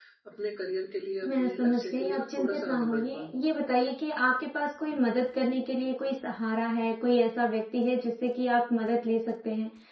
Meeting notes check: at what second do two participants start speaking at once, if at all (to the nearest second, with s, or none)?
1 s